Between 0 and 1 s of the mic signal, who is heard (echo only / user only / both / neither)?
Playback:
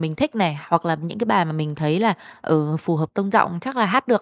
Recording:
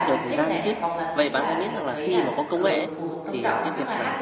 both